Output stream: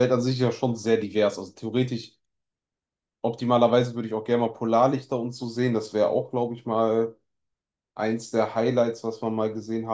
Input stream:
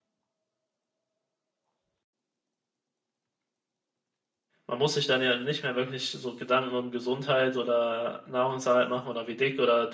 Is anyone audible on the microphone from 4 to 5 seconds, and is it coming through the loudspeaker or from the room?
user only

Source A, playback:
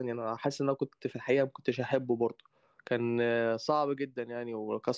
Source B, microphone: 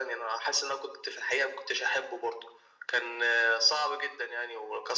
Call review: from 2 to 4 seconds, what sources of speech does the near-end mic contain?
echo only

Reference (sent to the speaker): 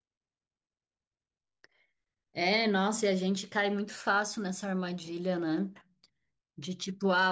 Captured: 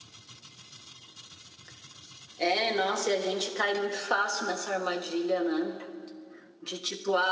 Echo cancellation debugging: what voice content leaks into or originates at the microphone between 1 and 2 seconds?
neither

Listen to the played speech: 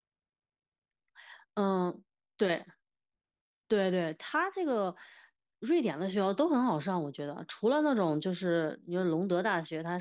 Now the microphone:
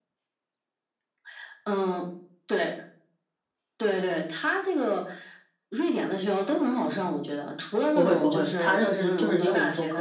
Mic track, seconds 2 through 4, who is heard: echo only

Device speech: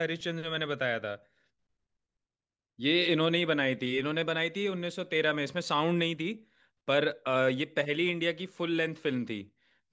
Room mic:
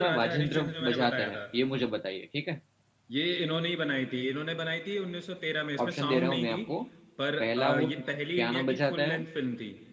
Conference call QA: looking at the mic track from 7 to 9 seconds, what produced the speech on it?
both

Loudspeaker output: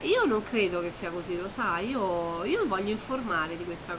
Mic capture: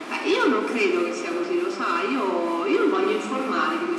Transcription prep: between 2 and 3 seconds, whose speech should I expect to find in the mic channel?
echo only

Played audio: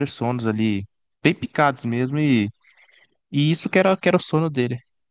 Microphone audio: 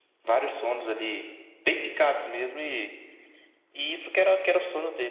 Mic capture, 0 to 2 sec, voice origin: echo only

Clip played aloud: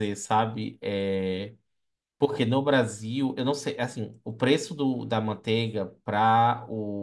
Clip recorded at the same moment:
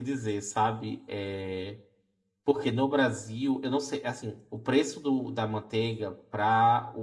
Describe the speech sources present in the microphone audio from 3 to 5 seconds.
echo only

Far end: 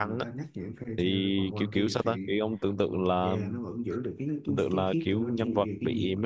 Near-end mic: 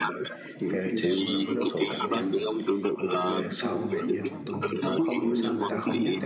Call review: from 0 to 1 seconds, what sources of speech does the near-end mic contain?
both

